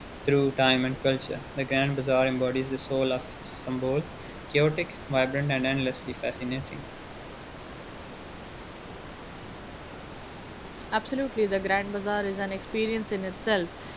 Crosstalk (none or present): none